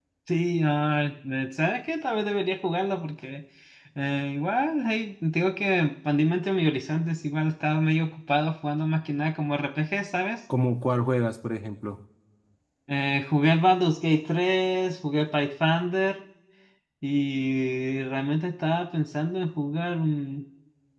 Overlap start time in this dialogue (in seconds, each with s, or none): none